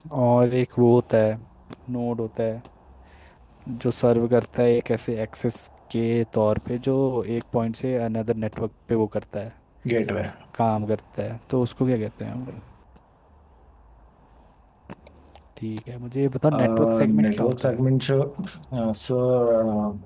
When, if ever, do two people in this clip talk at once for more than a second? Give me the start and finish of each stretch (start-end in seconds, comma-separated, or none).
16.5-17.8